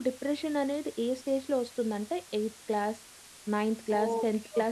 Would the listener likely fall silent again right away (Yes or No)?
No